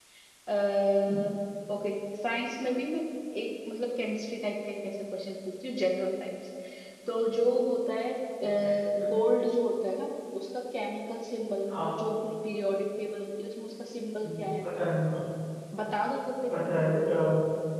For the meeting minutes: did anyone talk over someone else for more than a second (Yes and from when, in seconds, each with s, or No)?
No